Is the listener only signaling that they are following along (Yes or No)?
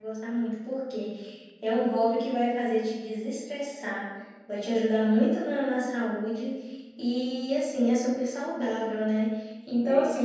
Yes